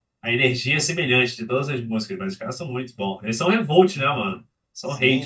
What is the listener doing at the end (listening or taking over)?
taking over